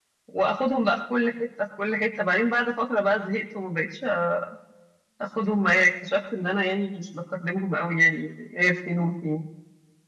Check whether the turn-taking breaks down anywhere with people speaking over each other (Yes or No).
No